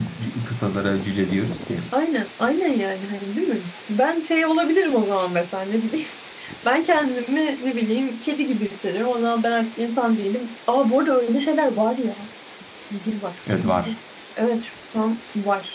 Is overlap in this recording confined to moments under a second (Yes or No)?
Yes